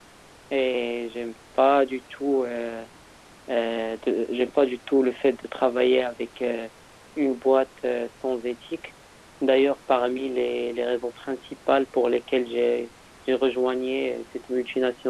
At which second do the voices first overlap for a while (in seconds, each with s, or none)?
none